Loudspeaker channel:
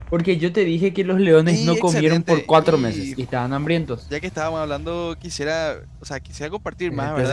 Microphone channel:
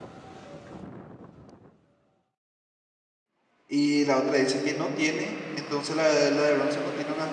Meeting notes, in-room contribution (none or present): present